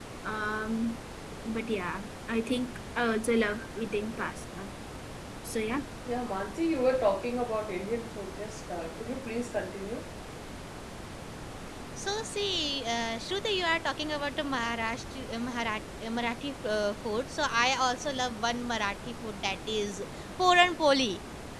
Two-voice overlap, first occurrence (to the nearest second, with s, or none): none